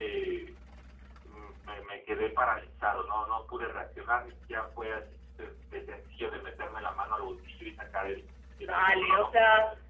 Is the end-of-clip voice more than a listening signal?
Yes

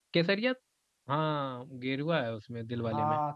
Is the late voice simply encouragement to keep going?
No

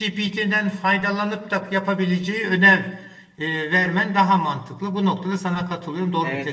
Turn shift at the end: Yes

